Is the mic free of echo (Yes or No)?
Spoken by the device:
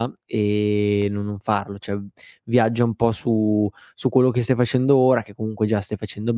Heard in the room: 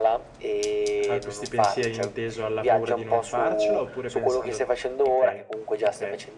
No